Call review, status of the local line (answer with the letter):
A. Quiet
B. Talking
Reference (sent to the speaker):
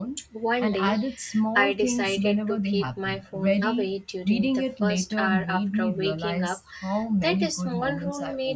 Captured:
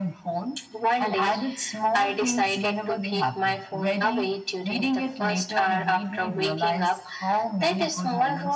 A